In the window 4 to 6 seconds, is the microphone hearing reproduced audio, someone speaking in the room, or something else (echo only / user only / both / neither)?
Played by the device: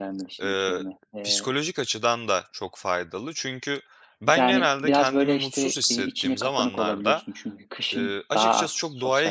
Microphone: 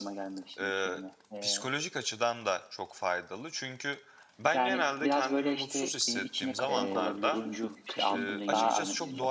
echo only